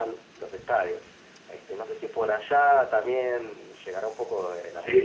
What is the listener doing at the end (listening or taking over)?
taking over